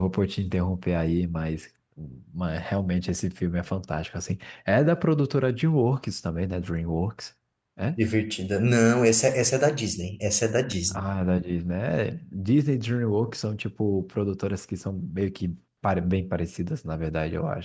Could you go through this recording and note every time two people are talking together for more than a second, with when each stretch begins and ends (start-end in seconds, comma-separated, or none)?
none